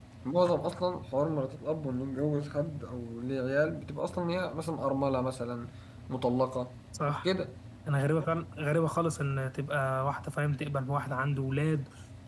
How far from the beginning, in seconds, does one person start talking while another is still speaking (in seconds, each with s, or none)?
none